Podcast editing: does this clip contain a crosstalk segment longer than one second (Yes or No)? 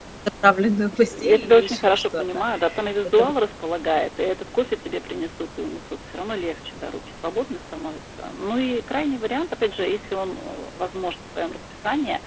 Yes